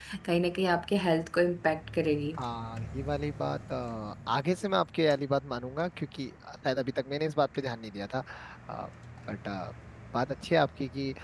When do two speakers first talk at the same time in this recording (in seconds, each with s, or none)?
none